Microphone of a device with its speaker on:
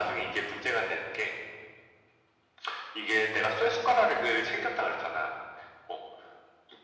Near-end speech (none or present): none